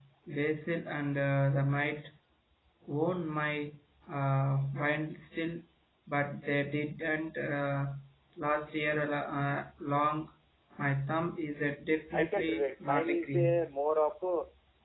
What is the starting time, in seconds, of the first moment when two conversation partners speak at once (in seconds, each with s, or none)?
12.1 s